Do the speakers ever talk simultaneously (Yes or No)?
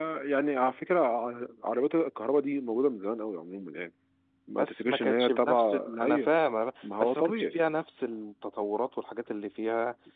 Yes